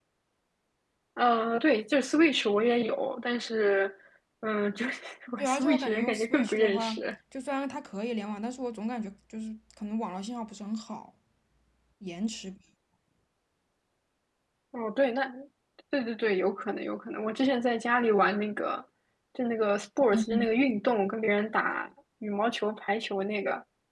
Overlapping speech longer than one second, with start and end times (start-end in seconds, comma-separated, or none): 5.4-7.0